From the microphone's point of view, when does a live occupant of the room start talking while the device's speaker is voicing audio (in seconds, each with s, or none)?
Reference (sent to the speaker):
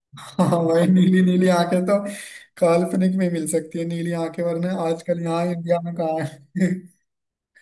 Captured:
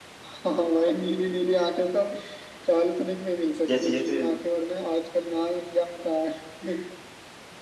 3.7 s